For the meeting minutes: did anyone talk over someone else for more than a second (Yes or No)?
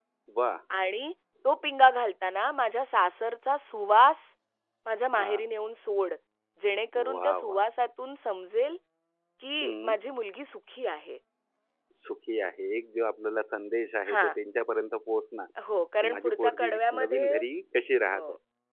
Yes